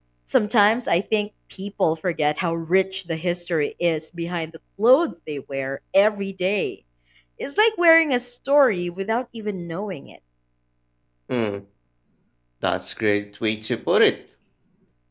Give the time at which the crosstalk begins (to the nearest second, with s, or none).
none